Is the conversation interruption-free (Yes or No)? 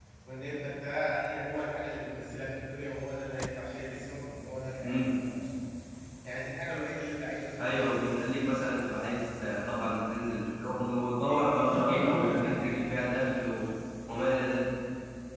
No